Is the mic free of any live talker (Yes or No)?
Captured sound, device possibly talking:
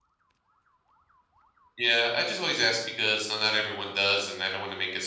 No